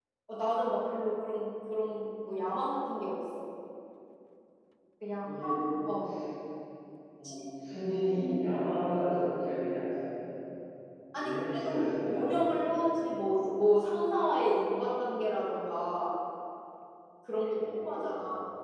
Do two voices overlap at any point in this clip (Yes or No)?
Yes